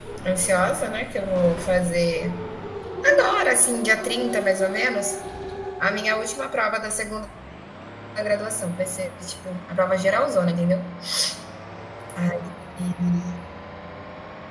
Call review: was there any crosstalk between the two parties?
No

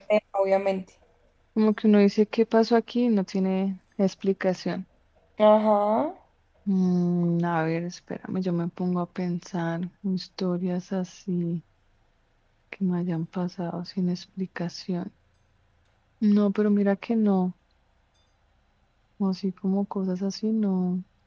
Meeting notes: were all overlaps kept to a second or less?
Yes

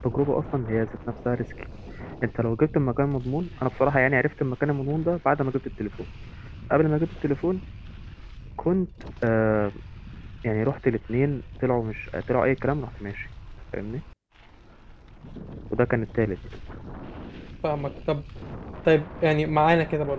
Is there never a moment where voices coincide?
Yes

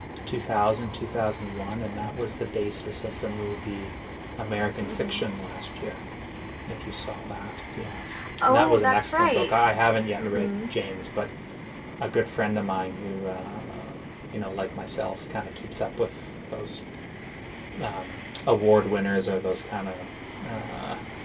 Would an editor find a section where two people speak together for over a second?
Yes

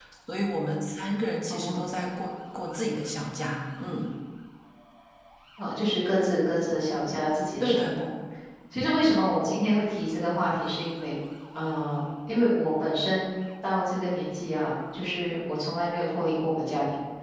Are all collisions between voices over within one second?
Yes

